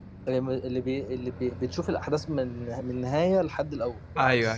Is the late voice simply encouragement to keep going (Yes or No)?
No